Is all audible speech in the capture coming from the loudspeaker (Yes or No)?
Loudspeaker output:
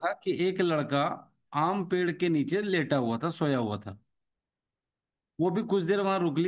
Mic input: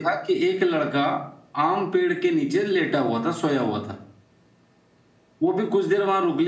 Yes